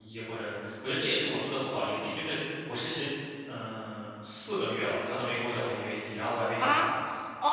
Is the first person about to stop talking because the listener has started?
Yes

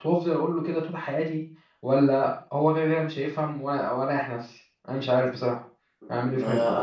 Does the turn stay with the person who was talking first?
No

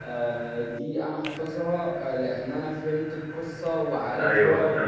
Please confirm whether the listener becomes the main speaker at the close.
Yes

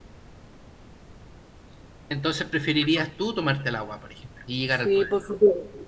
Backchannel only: No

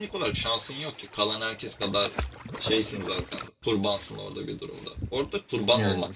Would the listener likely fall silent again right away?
Yes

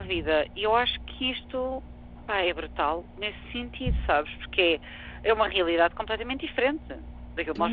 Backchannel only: No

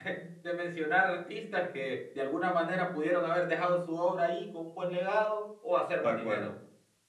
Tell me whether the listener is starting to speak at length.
No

